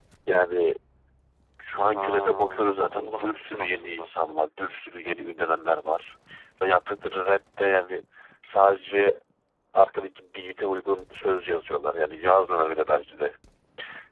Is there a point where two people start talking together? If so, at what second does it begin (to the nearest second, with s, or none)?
2 s